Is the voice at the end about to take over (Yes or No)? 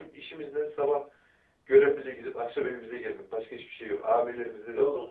Yes